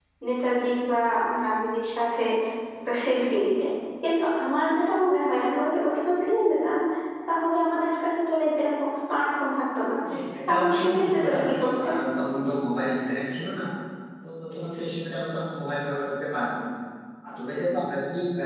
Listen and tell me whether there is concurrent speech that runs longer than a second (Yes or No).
Yes